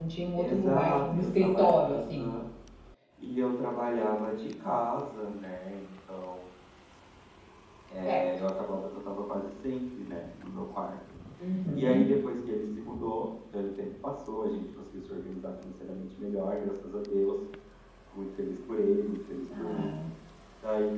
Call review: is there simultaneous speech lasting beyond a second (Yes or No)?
Yes